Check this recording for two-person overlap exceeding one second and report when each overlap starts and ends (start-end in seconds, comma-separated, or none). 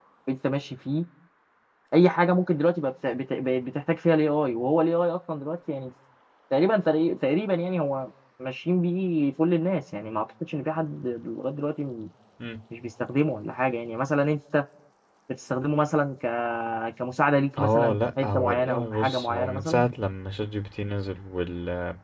17.6-19.8